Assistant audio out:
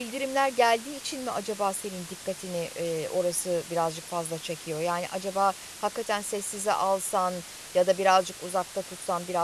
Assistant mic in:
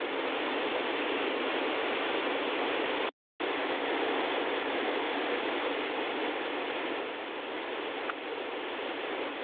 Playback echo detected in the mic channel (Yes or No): No